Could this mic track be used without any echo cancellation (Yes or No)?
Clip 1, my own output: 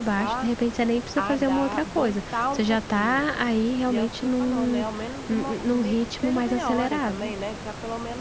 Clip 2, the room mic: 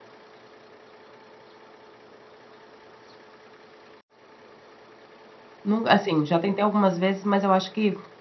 Yes